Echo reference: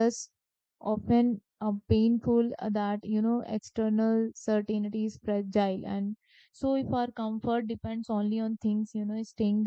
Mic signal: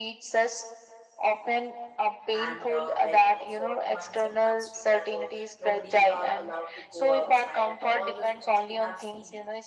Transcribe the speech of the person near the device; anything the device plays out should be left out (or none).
and uh, like you know for months and months together, nobody are allowed to go outside, and all these things we have seen it.